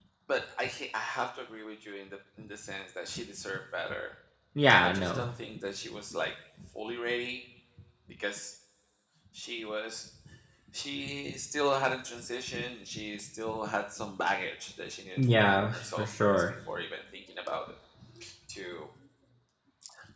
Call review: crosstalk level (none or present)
present